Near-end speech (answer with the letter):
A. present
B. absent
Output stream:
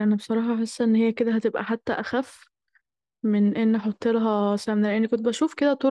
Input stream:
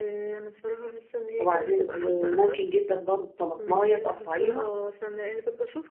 A